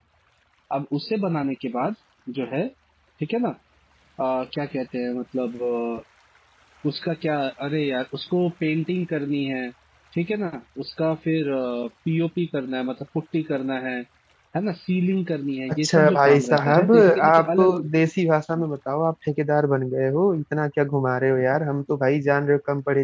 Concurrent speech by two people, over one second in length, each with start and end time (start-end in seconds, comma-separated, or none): 15.7-17.8